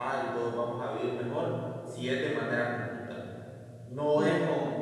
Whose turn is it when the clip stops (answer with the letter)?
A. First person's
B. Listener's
A